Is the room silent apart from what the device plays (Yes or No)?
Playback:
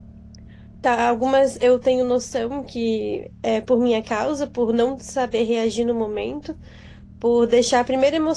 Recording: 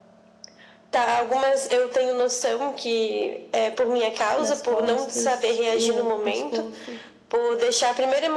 No